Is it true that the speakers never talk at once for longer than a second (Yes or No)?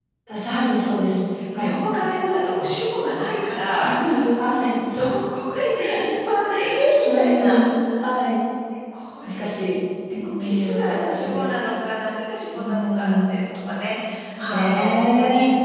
No